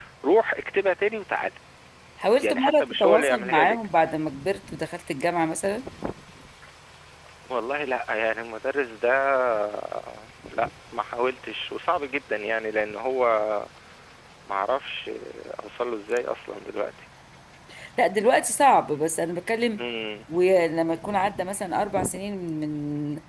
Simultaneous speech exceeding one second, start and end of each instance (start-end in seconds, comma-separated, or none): 2.4-3.8